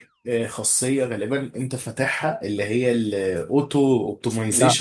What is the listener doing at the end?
listening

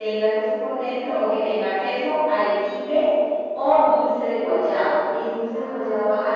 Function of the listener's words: taking over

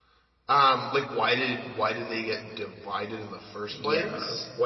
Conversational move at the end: taking over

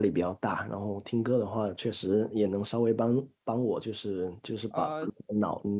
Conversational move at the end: listening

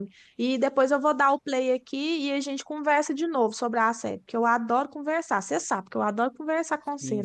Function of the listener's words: taking over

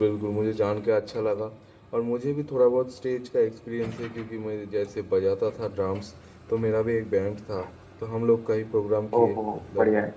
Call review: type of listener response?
listening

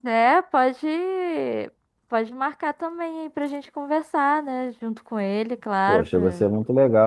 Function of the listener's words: taking over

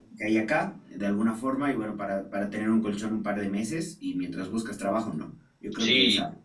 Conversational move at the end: listening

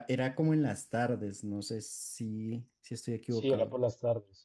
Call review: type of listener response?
taking over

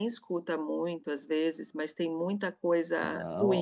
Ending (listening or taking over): taking over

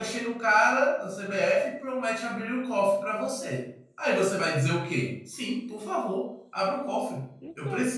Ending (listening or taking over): listening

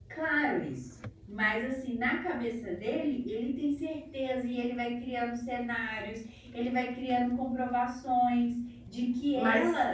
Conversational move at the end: listening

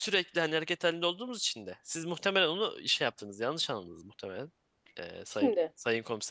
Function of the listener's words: listening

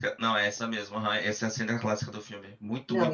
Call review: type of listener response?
listening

